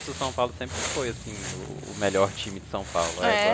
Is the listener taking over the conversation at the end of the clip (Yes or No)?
Yes